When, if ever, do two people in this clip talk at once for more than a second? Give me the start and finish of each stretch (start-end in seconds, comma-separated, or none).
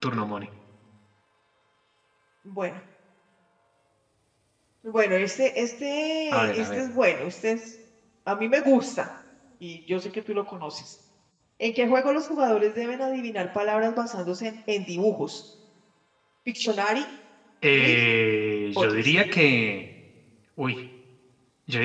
none